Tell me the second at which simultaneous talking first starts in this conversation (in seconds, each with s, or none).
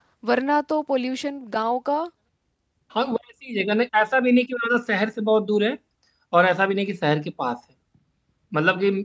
none